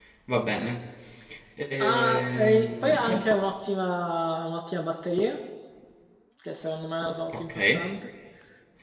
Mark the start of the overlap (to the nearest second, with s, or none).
2 s